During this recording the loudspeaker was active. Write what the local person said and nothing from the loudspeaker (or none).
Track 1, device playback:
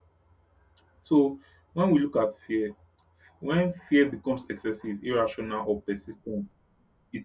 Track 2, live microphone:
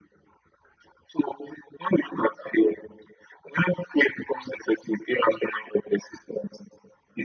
none